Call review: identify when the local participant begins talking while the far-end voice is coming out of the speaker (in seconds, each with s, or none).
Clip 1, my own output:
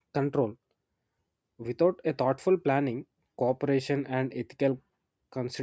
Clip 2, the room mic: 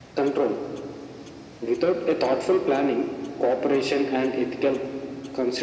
none